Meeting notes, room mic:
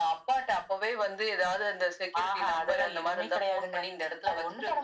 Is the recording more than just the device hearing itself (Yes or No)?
No